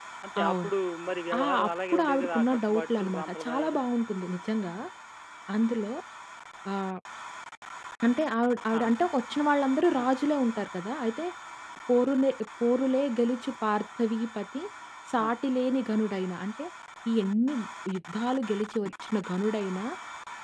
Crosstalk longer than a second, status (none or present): present